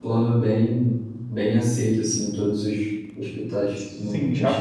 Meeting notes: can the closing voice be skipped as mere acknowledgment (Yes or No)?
No